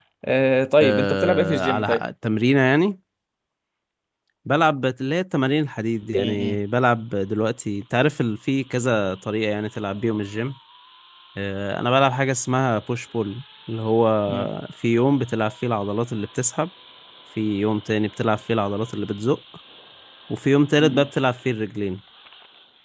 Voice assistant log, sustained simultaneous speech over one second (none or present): present